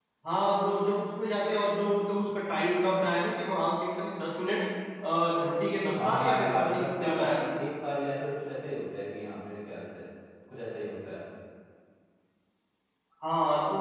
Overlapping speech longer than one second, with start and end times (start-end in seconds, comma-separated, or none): 6.0-7.4